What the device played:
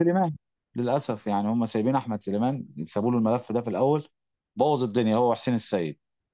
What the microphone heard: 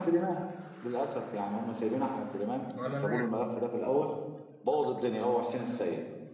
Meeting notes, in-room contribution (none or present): present